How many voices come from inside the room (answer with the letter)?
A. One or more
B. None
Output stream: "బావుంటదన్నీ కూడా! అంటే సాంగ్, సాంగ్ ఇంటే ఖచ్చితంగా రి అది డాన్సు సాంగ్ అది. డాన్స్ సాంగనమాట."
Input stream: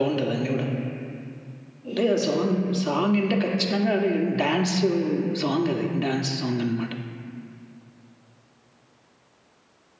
A